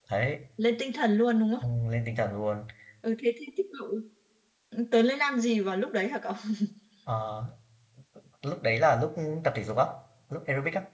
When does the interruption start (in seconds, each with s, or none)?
none